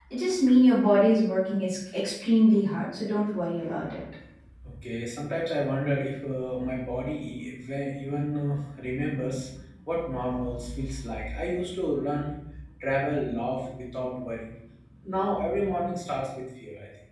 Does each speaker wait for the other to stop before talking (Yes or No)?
Yes